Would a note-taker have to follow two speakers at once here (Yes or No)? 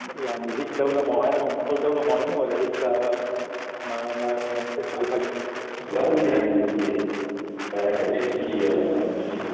No